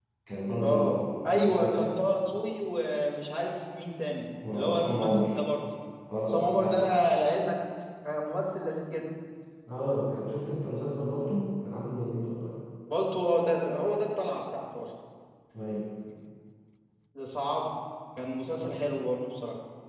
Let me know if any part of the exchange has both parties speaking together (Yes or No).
Yes